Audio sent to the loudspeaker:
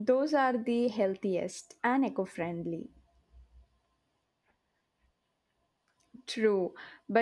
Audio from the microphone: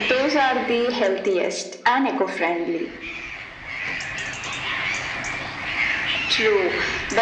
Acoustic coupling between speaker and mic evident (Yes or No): Yes